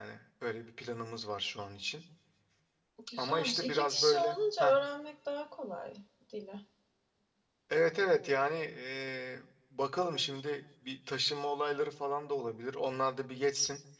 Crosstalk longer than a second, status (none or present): present